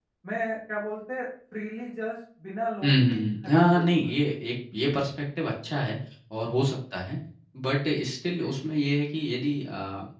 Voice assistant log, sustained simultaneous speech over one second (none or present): present